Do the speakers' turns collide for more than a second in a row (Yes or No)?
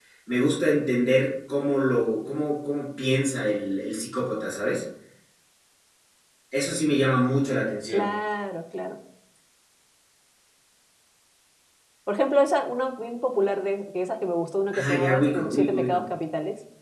Yes